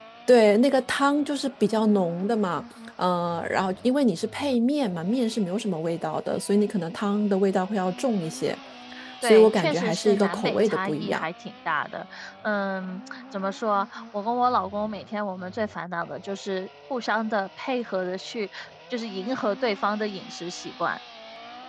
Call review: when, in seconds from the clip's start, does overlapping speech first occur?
9.2 s

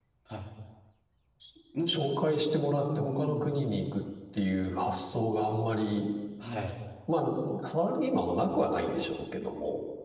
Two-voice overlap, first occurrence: 1.9 s

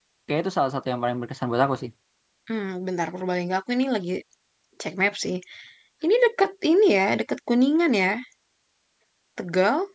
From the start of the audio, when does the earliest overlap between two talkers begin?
none

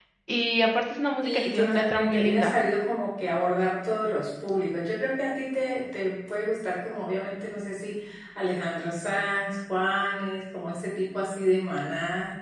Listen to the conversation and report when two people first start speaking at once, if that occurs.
1.2 s

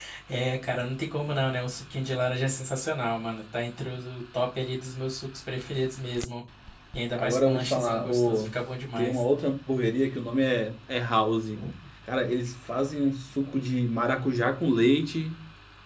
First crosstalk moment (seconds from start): 7.2 s

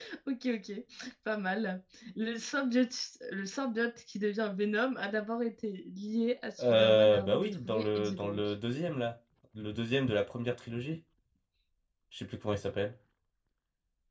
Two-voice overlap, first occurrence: 6.6 s

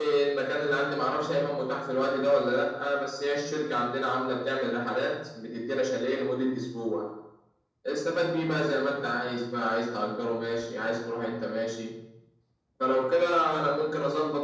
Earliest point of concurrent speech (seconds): none

